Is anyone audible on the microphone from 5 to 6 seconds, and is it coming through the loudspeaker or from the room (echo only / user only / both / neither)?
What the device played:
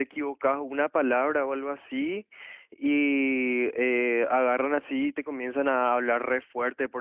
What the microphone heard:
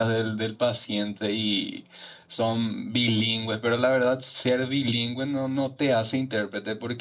user only